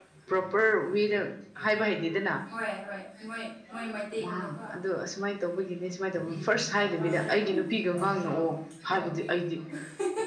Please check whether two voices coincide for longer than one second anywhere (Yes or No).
No